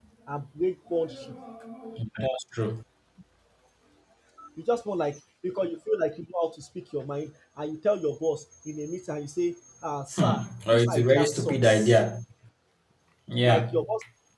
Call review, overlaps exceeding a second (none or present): present